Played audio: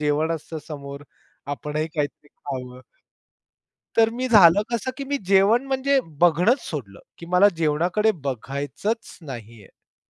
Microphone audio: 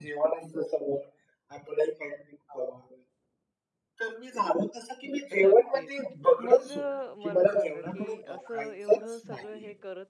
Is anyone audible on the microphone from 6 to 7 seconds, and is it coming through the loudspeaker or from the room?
both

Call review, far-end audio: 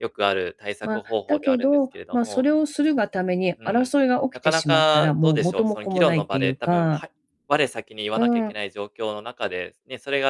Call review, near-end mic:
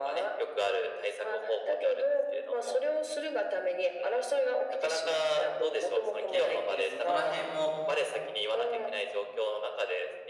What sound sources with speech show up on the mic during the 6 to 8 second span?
both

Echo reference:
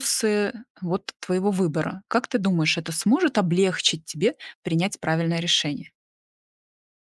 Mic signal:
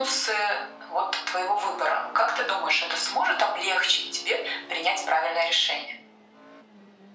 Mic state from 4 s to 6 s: echo only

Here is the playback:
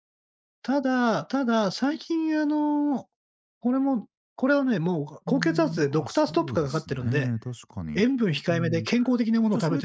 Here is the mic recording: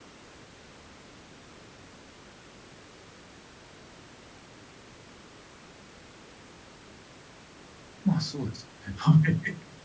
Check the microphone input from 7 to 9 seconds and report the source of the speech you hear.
user only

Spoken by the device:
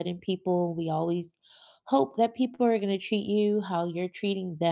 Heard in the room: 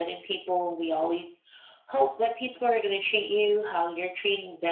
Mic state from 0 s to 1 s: echo only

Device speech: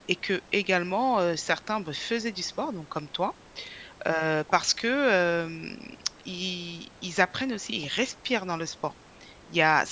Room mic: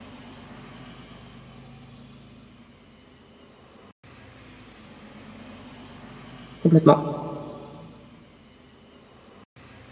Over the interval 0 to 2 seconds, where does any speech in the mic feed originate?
neither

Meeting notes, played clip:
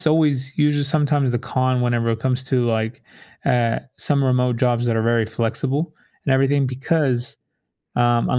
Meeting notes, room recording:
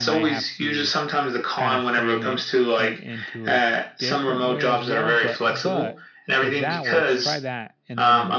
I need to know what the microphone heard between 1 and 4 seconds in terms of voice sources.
both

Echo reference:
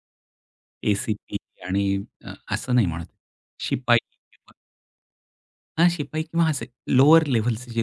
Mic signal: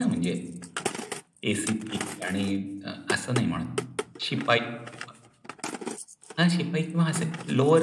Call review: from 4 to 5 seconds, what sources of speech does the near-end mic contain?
echo only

